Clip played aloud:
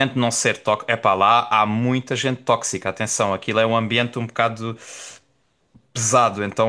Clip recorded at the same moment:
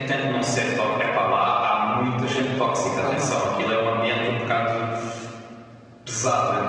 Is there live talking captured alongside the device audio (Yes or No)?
Yes